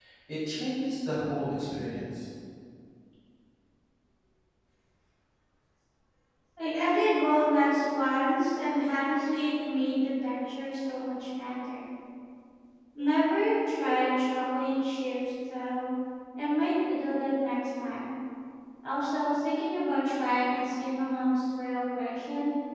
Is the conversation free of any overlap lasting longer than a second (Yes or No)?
Yes